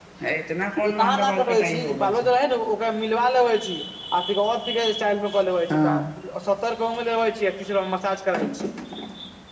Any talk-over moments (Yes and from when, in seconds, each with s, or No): Yes, from 0.9 s